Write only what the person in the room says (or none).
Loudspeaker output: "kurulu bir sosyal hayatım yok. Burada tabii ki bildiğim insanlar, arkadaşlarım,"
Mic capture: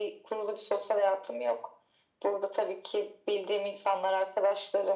none